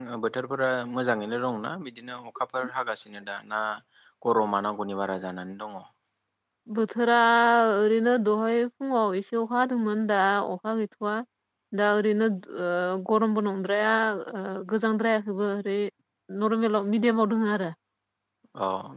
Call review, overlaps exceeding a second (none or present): none